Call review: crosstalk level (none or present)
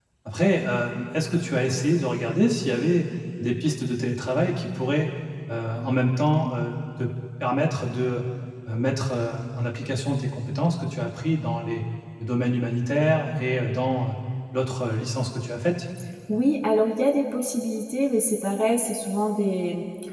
none